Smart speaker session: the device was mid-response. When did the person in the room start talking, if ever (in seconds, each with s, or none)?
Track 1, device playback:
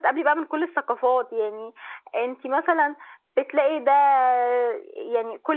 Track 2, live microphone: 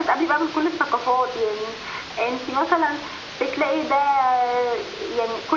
none